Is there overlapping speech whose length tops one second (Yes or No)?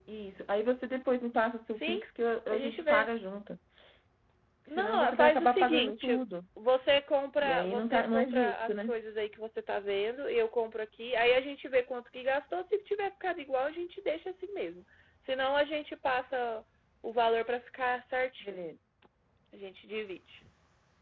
Yes